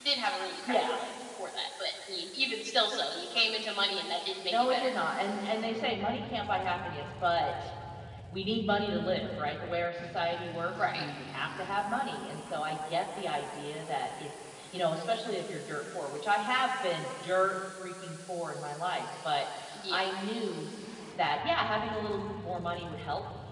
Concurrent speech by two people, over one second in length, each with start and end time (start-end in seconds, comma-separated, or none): none